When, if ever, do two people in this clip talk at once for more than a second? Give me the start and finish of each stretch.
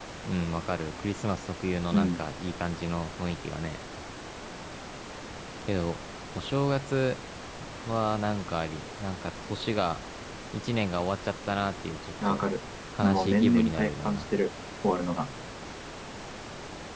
13.0-14.2

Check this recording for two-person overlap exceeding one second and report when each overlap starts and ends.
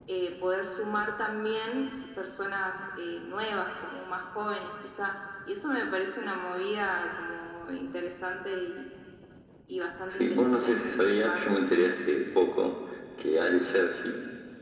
10.1-11.4

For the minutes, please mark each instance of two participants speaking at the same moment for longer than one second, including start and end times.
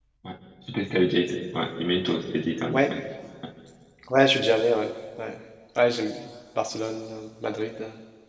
none

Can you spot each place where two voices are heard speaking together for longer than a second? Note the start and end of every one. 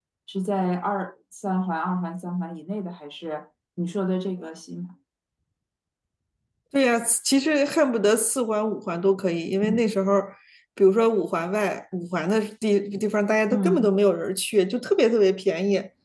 none

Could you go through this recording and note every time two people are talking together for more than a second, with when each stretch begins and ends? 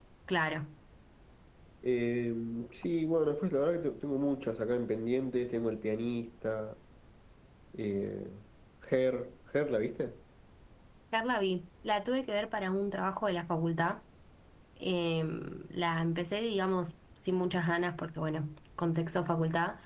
none

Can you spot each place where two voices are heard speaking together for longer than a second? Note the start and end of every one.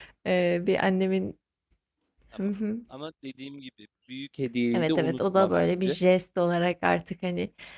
4.7-6.0

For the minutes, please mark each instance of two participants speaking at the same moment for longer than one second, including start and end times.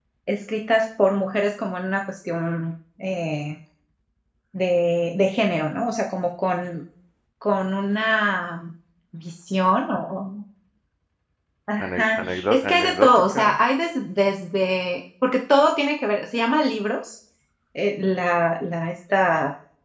11.8-13.6

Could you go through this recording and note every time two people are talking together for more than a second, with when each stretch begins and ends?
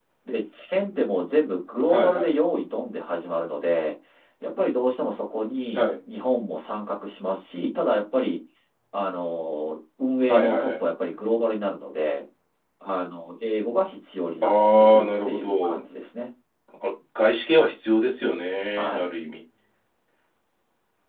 14.4-15.8

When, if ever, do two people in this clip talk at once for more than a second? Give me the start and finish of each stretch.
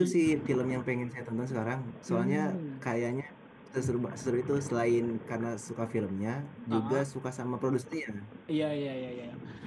none

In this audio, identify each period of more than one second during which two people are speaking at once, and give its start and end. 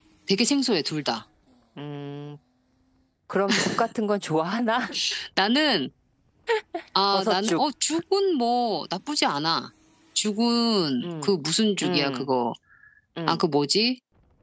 none

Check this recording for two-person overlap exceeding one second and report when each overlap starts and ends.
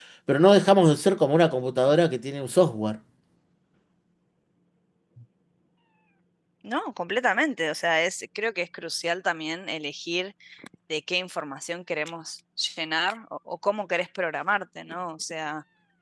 none

